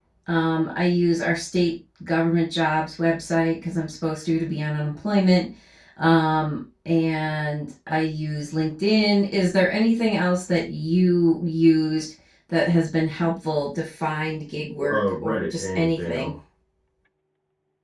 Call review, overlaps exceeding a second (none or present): present